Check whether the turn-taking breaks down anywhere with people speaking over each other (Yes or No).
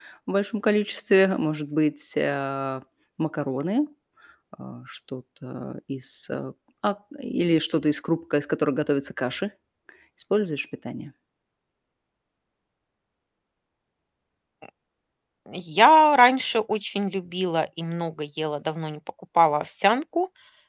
No